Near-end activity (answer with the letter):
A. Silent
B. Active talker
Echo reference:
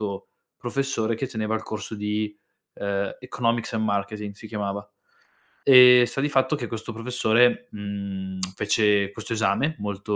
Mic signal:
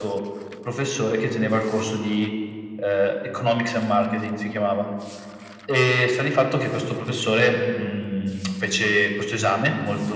A